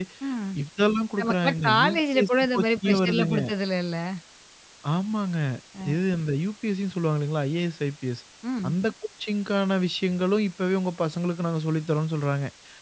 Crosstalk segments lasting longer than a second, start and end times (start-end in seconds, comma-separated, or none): 1.2-3.4